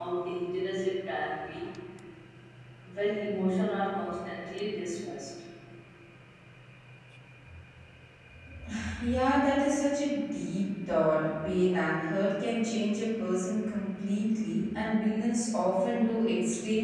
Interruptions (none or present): none